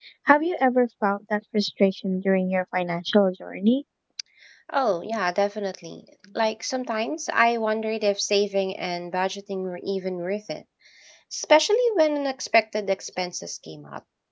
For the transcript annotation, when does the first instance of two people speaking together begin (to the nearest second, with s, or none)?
none